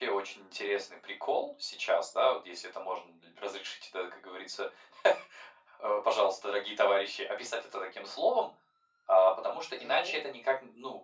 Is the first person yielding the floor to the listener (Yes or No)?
No